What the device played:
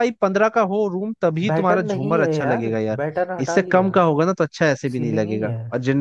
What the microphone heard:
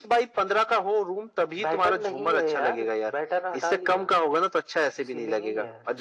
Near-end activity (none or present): none